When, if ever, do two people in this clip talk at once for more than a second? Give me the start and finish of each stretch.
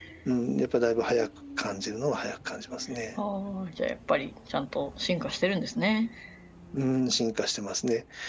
none

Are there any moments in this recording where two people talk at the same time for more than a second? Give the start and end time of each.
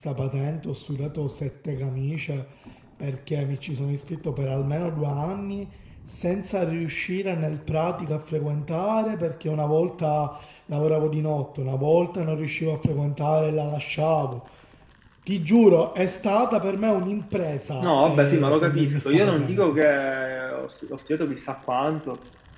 17.8-19.8

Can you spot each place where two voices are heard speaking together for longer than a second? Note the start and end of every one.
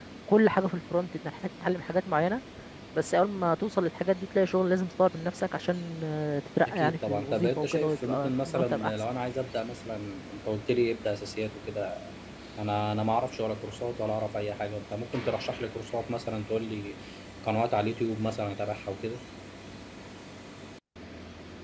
6.7-8.9

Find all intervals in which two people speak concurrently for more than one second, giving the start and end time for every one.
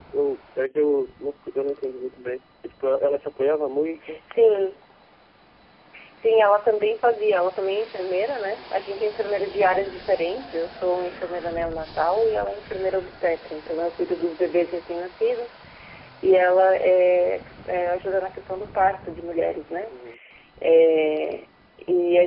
none

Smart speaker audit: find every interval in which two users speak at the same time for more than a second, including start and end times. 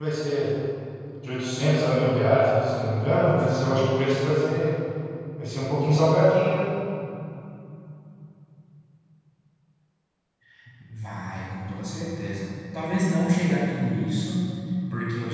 none

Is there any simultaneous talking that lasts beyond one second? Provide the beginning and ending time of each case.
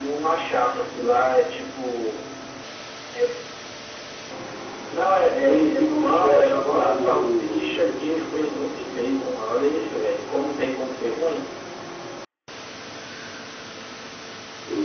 5.4-7.9

